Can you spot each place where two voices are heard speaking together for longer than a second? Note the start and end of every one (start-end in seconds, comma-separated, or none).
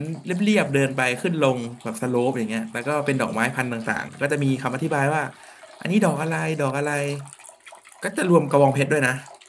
none